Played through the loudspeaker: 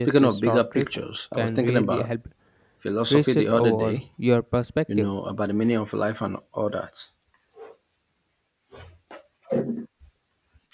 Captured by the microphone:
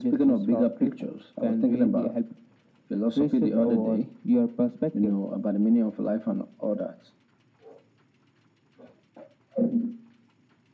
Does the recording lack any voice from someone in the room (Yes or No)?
Yes